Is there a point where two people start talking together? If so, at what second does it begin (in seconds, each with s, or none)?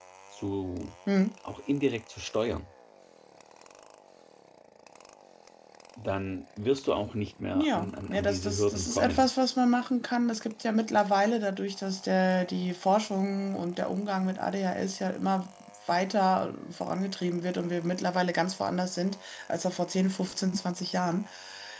7.5 s